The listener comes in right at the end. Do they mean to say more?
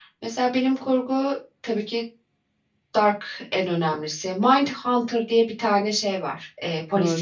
Yes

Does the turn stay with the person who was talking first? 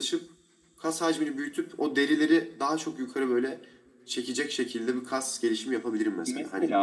No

